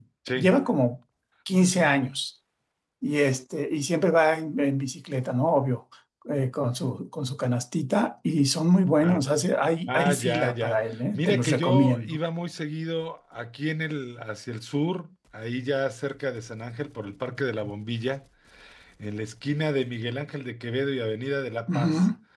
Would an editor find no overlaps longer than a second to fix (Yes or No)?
No